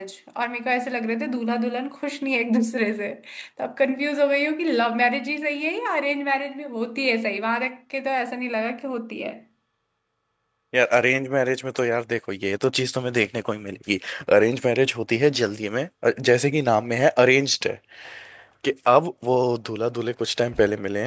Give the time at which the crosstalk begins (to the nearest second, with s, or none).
none